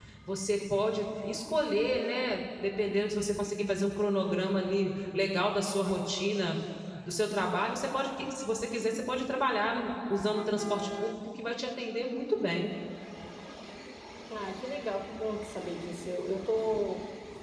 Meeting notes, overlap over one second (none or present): none